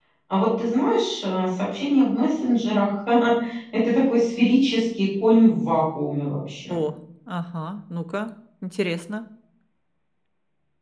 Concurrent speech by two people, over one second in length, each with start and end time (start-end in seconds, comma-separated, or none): none